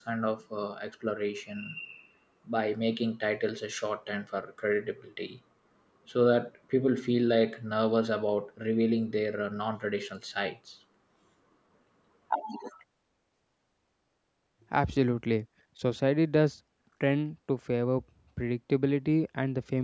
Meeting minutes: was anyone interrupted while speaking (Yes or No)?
No